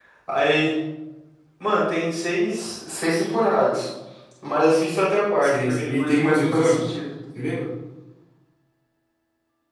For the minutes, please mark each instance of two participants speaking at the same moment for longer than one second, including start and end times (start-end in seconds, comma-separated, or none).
5.4-6.8